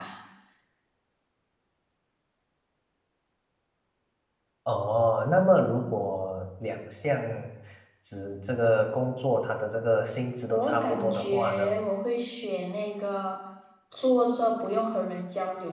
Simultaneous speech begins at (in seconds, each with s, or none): 10.5 s